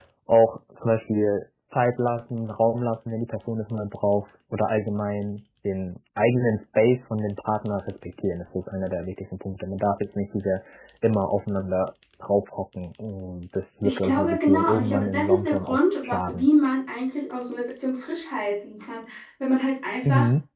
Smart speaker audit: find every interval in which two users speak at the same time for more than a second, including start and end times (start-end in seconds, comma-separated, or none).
13.8-16.5